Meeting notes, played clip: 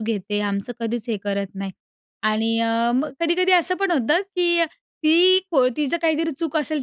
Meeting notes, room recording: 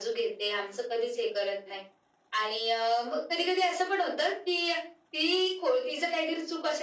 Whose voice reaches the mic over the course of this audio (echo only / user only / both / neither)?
echo only